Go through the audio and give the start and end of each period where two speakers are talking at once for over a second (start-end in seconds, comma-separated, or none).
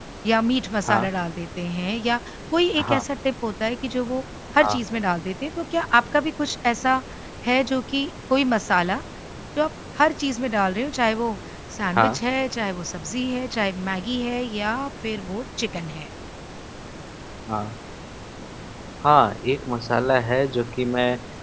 none